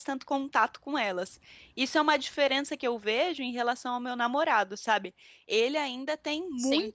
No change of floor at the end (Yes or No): Yes